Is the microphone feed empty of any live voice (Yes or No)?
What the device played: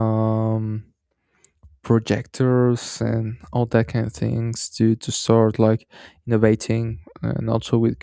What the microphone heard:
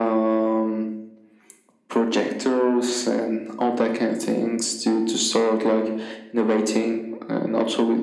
Yes